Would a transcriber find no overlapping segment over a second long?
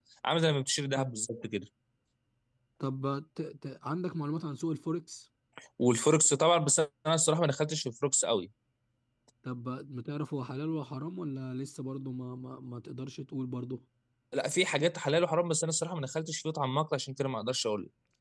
Yes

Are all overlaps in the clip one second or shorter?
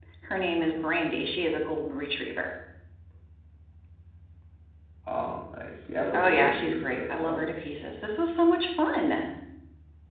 No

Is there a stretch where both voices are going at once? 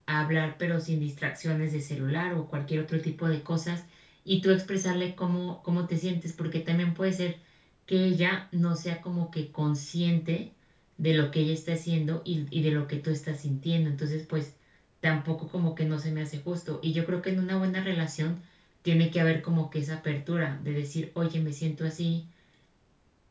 No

